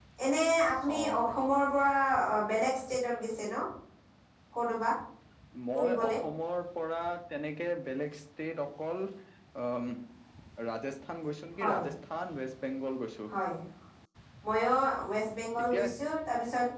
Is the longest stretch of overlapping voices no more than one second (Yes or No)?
Yes